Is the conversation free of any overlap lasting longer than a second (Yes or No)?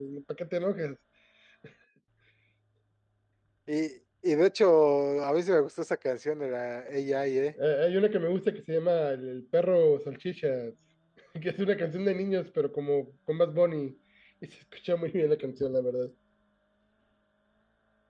Yes